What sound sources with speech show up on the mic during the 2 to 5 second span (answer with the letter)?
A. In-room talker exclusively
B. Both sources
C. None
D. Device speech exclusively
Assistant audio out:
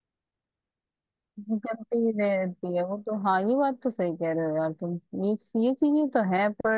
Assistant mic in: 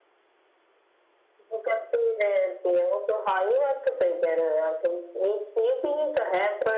D